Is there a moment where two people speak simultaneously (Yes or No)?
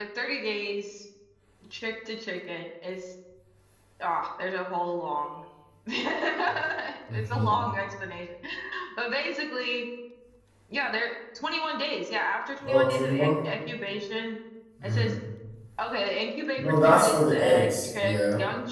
Yes